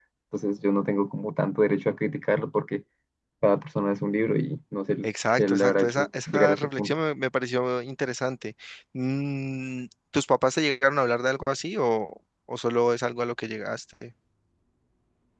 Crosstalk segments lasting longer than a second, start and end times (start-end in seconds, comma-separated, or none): 5.0-6.9